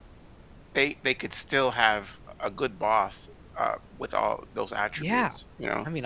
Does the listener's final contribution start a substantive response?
Yes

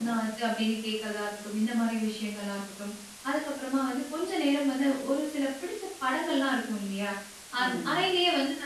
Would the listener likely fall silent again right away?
Yes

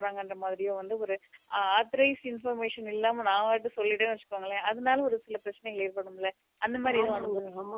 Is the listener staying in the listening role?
No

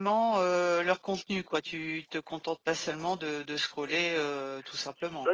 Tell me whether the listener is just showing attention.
No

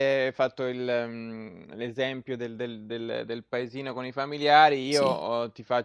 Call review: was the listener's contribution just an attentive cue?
Yes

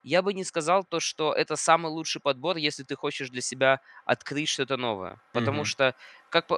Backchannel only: Yes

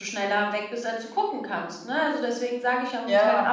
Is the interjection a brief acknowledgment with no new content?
Yes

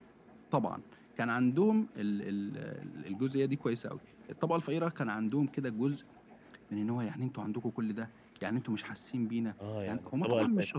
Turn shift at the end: Yes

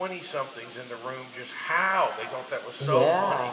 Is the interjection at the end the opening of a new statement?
No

